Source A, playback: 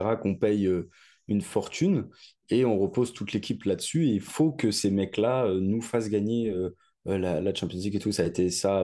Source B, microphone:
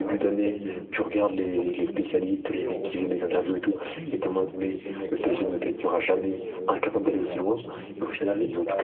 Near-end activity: present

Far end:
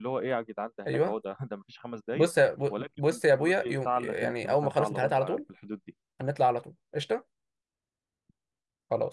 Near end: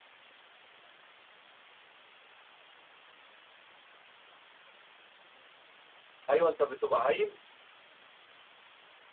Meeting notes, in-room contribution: present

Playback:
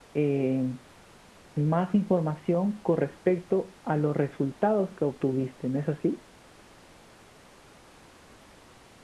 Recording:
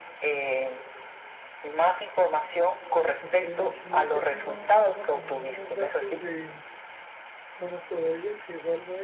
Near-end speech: present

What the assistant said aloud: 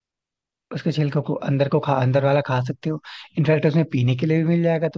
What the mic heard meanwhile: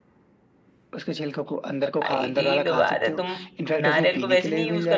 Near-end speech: present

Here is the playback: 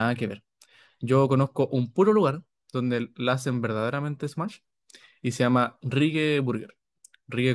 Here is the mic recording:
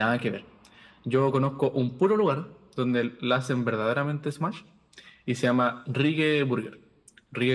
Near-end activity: none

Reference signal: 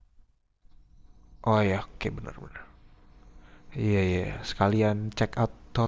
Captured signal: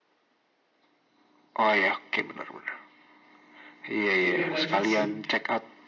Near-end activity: present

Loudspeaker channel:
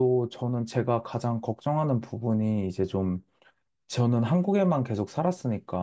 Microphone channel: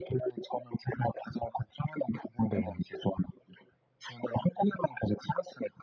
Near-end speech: present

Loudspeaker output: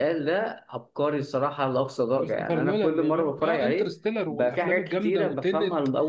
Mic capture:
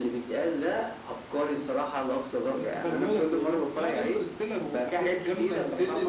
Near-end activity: none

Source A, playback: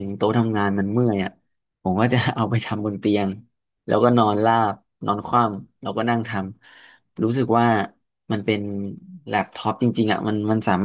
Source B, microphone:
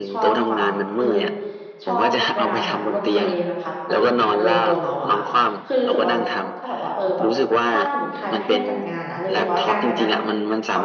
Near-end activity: present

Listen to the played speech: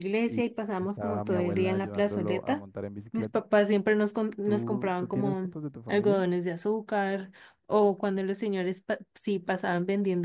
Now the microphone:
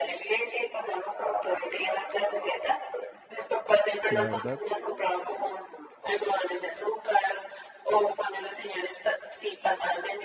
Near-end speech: present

